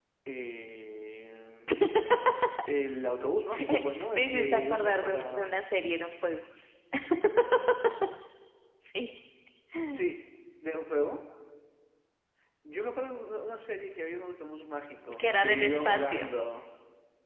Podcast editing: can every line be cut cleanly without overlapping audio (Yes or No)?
No